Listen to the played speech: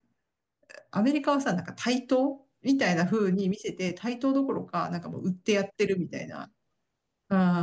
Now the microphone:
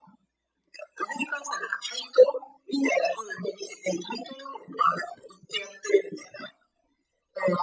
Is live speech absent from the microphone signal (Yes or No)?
Yes